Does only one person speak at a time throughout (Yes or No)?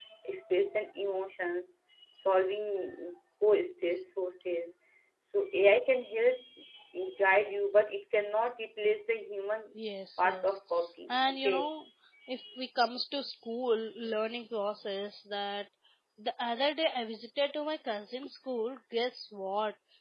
No